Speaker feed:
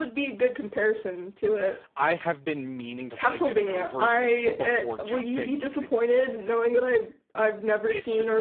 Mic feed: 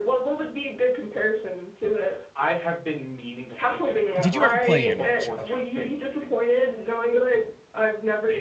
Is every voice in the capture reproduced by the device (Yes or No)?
No